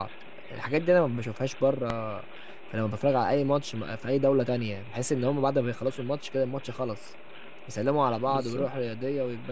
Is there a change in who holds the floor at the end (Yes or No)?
No